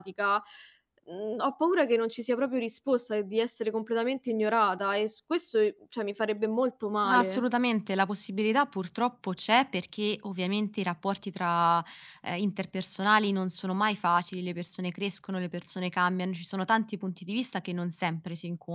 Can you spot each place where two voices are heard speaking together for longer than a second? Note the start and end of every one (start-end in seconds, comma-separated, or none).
none